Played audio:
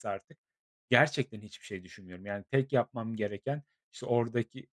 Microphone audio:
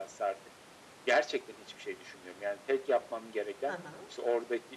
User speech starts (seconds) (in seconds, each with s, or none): 3.6 s